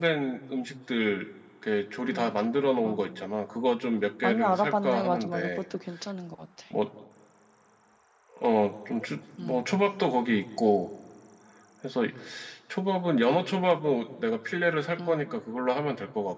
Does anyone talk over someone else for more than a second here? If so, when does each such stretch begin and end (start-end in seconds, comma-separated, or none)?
4.2-5.5